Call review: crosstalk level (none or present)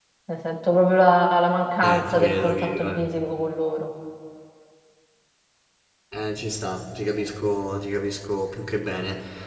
present